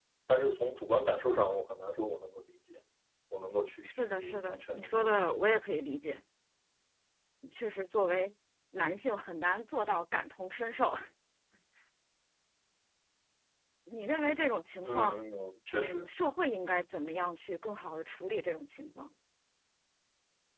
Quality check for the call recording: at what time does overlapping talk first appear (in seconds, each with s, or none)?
3.8 s